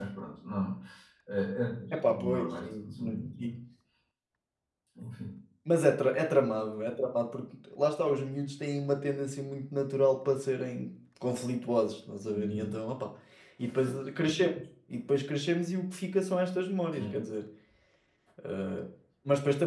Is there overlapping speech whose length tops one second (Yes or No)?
Yes